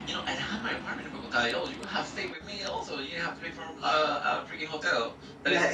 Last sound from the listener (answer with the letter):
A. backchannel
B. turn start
B